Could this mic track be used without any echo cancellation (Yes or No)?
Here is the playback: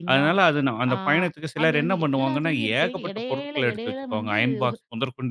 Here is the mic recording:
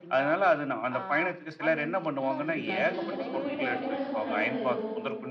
No